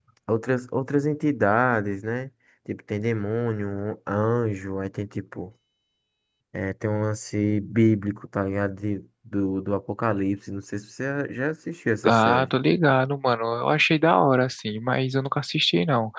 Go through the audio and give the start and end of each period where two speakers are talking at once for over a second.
none

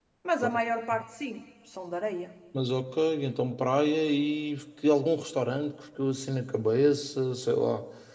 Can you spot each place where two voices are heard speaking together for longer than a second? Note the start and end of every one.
none

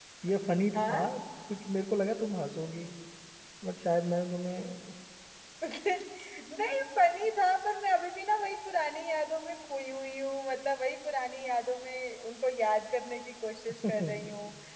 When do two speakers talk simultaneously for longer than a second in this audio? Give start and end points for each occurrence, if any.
none

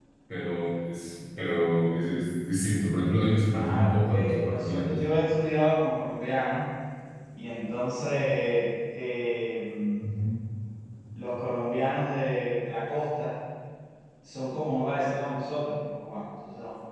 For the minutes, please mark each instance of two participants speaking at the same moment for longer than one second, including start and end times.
3.5-5.0

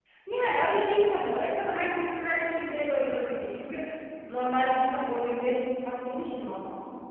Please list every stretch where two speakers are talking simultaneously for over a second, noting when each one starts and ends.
none

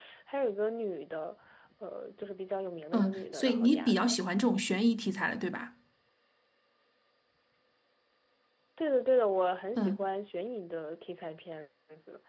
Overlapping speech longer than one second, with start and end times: 2.9-4.2

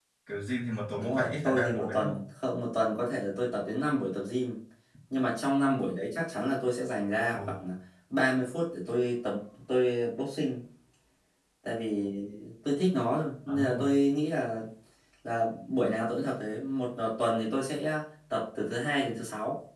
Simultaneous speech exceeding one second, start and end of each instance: 0.9-2.2

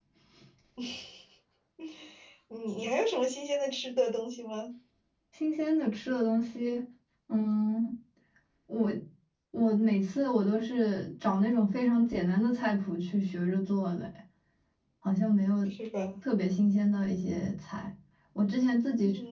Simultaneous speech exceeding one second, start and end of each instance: none

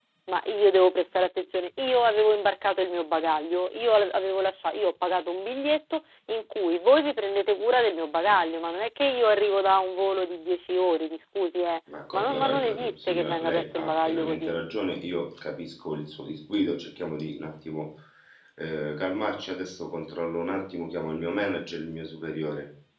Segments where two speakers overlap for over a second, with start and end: 12.1-14.5

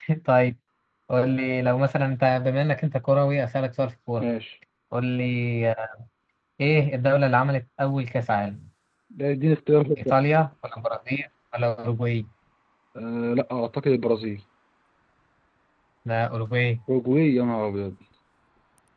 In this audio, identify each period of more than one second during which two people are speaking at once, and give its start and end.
none

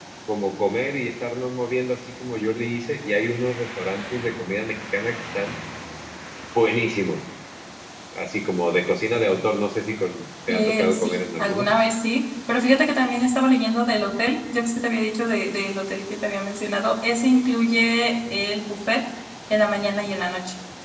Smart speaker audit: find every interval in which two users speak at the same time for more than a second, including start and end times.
10.5-11.7

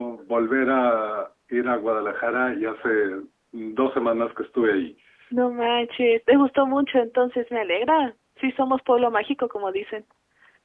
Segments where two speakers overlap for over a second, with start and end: none

